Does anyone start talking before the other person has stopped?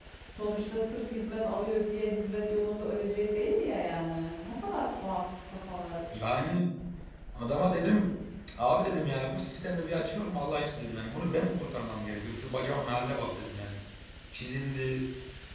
No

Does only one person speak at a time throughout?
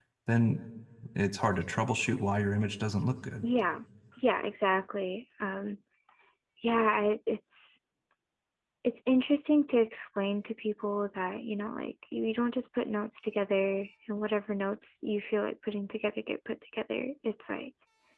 Yes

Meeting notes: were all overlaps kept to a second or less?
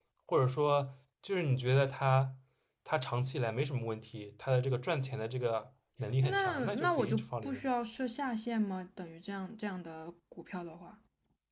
No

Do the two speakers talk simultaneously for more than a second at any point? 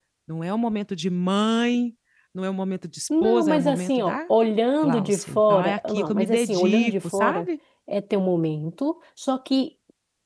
Yes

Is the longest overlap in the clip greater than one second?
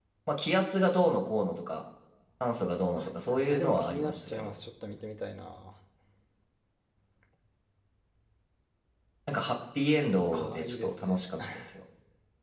Yes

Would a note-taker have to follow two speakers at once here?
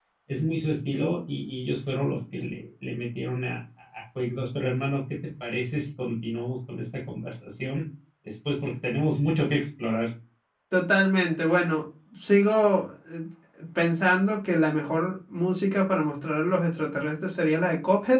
No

